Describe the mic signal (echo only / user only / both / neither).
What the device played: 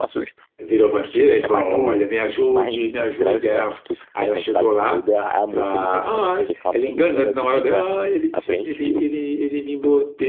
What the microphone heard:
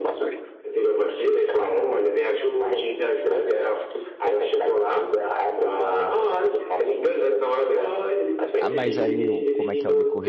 both